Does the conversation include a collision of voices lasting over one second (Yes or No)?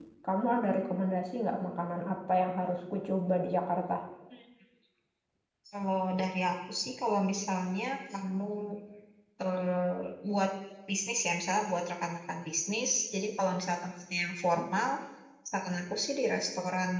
No